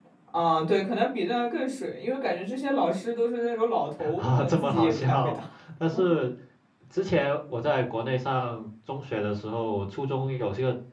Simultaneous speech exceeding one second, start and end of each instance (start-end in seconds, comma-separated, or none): 4.2-5.4